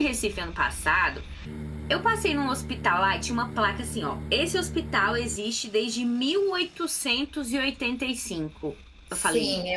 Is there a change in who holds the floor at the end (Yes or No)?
Yes